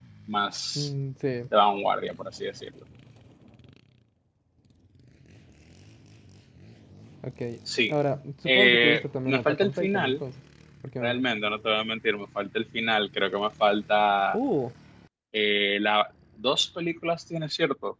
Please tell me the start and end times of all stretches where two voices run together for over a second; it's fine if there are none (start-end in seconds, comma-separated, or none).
8.5-10.2